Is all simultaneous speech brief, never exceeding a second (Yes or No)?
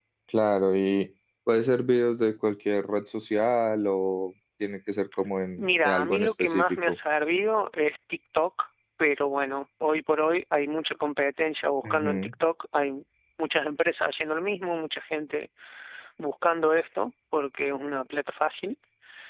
No